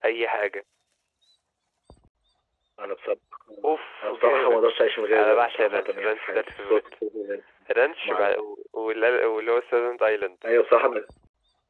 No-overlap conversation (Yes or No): No